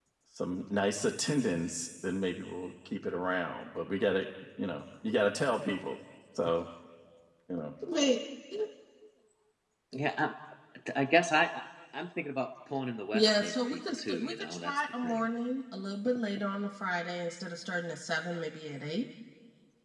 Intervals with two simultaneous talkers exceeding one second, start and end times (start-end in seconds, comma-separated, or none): 13.1-15.2